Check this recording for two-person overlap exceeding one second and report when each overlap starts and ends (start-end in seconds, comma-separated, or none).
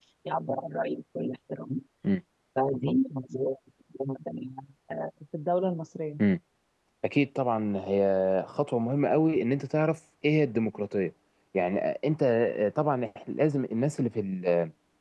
none